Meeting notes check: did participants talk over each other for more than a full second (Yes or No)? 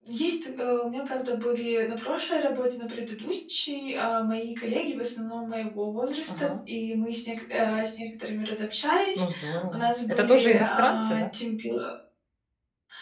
Yes